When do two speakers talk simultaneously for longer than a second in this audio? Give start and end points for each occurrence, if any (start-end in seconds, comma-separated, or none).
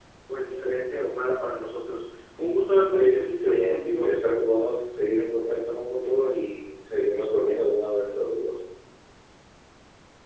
2.9-4.1